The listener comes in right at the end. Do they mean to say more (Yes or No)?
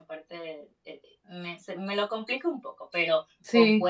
No